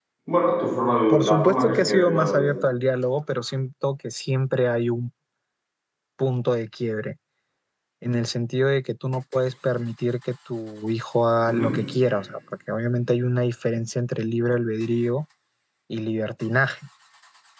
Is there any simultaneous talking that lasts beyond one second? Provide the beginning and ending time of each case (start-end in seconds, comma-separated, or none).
1.1-2.4